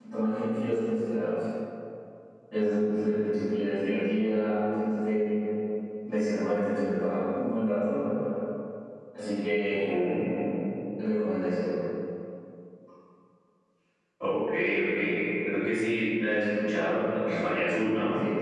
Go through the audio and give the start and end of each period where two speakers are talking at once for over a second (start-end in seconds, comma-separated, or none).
none